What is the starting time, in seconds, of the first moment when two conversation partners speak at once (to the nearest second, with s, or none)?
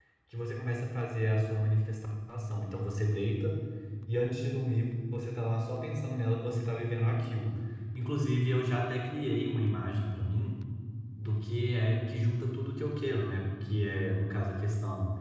none